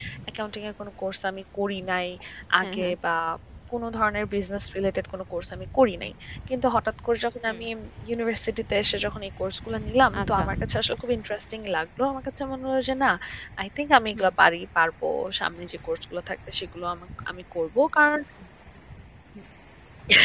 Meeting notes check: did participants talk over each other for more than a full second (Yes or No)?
No